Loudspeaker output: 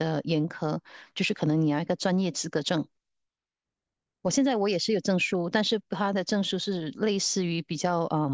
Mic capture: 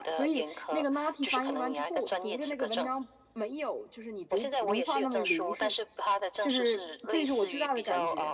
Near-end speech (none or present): present